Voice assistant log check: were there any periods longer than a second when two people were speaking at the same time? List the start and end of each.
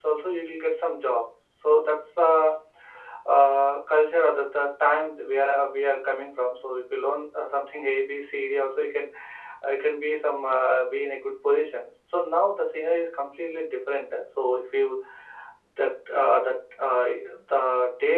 none

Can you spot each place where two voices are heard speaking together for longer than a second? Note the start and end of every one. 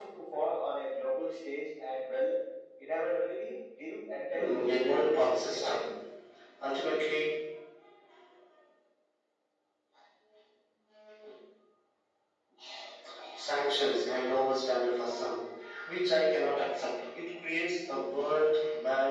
4.3-5.8

